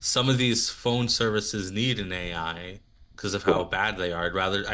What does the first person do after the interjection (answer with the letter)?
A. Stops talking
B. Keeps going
B